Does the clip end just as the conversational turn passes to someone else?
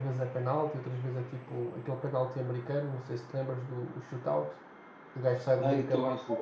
Yes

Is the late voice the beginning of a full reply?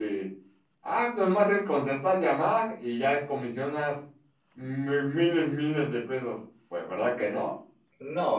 Yes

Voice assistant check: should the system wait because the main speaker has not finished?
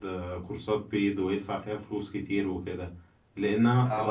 Yes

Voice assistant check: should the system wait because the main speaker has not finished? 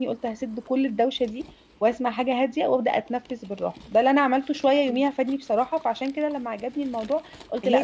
Yes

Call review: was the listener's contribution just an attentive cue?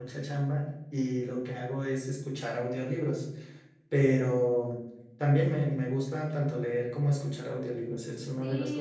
No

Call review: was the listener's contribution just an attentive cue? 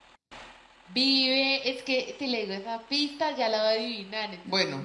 No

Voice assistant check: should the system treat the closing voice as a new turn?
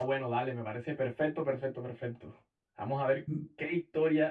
No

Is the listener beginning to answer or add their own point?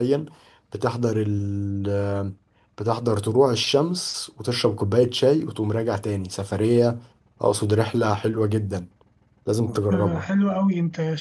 Yes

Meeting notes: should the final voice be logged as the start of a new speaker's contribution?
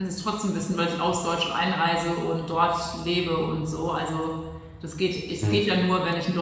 No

